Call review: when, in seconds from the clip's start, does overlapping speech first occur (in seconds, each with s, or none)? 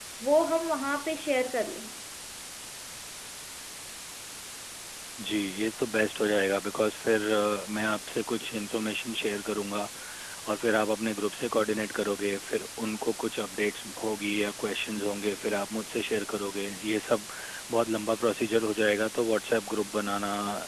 none